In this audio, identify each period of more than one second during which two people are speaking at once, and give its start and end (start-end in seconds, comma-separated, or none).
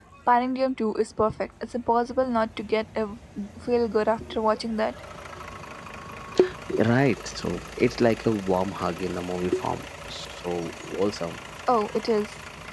none